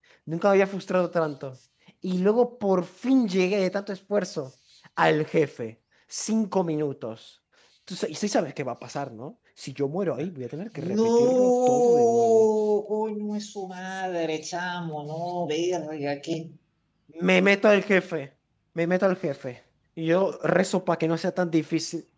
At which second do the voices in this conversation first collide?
10.8 s

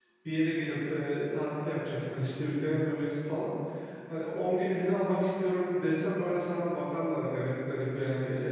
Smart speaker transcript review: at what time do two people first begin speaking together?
none

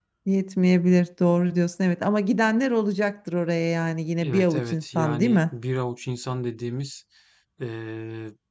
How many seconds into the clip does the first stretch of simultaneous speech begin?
4.2 s

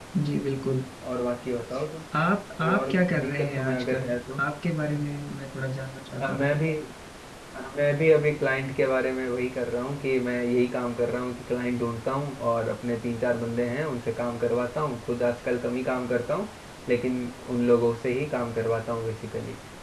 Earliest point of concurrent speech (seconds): 2.6 s

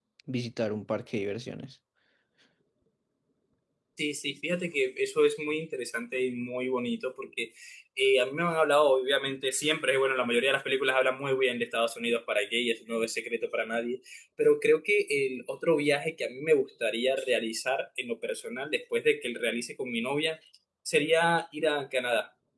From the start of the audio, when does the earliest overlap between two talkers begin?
none

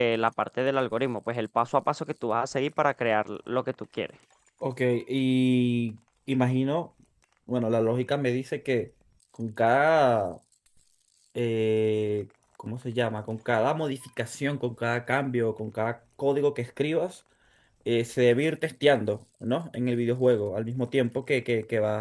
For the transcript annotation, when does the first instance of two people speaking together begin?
none

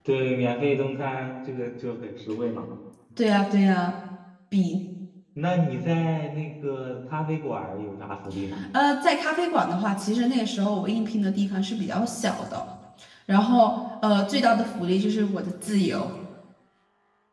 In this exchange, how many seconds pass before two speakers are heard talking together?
none

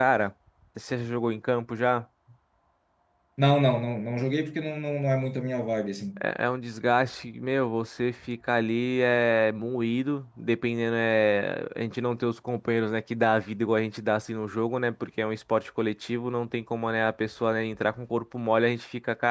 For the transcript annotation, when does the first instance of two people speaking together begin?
none

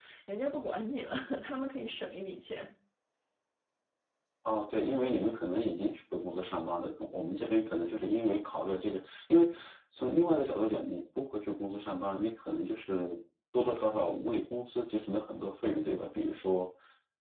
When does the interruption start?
none

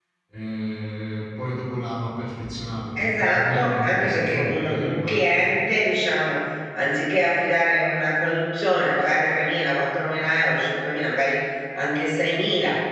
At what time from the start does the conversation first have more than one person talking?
3.0 s

